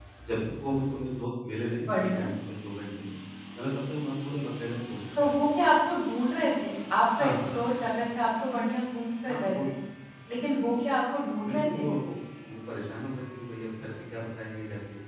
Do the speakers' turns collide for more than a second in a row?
No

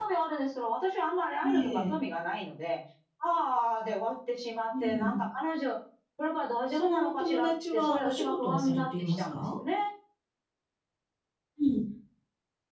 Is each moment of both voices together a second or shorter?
No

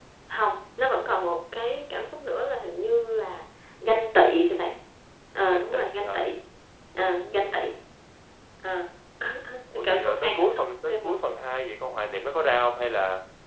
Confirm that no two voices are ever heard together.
No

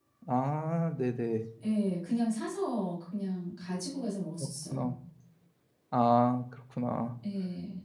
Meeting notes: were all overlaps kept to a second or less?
Yes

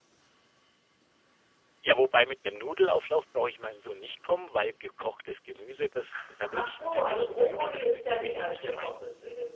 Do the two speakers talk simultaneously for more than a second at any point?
Yes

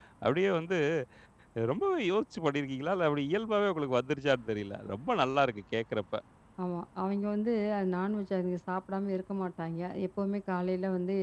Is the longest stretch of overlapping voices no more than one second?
Yes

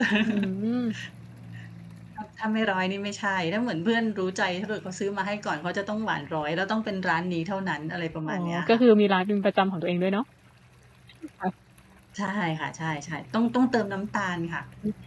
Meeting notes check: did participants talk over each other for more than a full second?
No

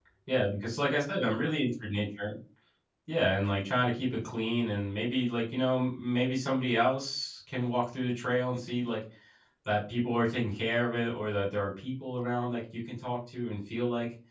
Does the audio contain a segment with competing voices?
No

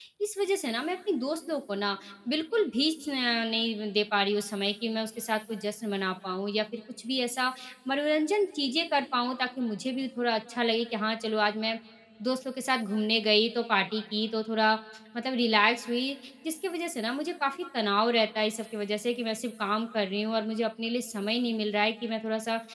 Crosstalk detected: No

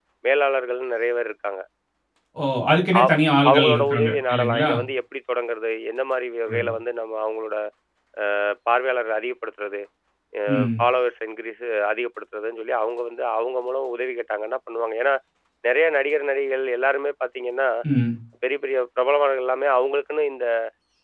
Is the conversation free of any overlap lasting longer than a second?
No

